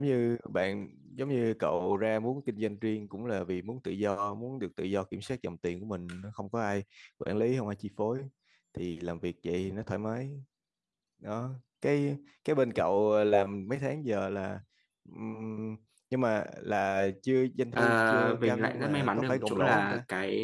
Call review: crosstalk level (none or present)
present